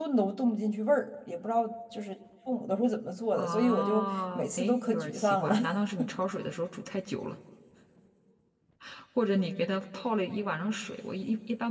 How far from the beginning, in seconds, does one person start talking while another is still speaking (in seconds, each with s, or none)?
3.3 s